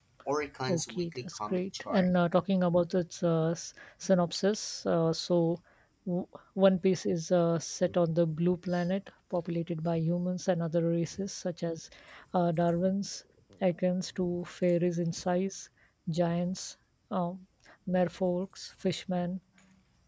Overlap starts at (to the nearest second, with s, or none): 1 s